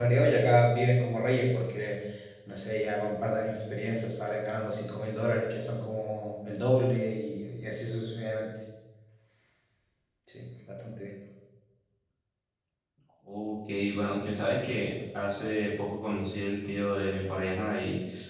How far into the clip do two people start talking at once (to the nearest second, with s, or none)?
none